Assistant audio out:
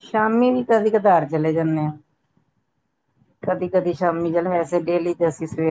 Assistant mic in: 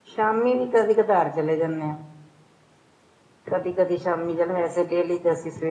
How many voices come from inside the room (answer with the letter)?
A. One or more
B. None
B